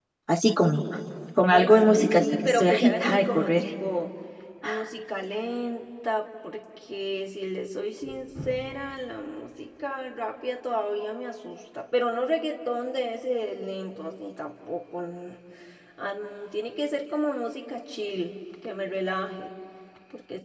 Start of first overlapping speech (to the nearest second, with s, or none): 2 s